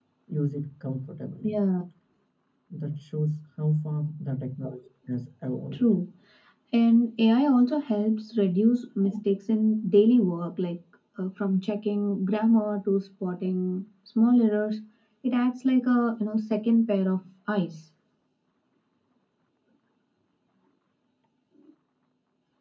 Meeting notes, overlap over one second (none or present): none